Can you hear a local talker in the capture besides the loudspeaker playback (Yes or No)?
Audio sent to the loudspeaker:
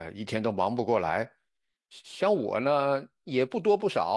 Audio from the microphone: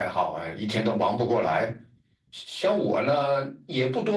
No